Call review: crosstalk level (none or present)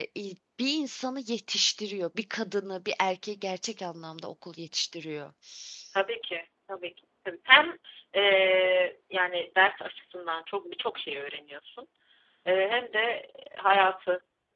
none